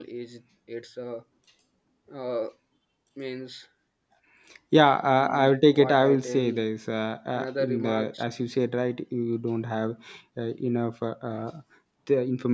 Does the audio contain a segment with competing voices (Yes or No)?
Yes